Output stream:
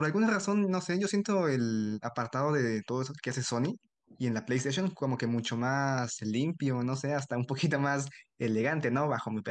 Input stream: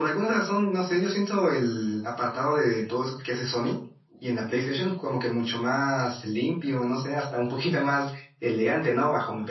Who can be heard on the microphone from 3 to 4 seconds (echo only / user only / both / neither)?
echo only